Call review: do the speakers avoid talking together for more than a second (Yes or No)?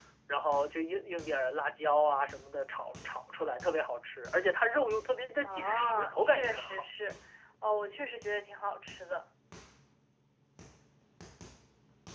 No